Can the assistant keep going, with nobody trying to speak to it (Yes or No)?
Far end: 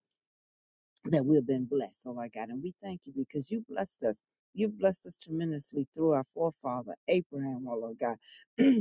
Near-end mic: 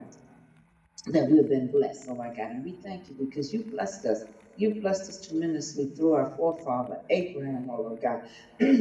Yes